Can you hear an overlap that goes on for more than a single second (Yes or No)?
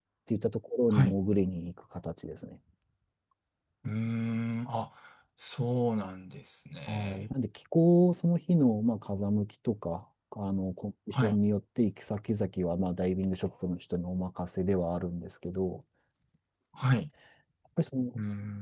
No